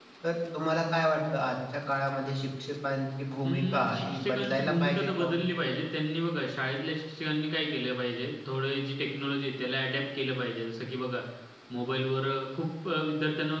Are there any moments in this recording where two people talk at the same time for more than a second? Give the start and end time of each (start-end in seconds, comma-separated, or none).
3.4-5.3